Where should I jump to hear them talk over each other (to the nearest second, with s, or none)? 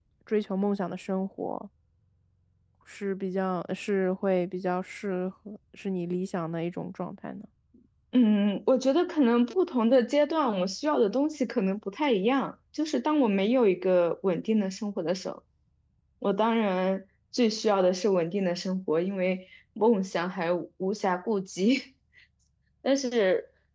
none